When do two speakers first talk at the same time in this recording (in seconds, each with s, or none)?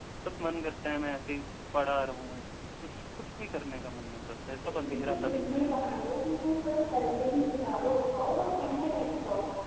4.8 s